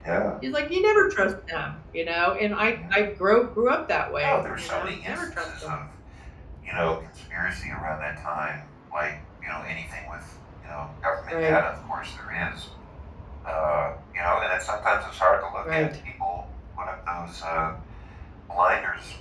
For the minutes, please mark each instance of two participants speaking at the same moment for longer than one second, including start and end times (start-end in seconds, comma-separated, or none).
4.2-5.8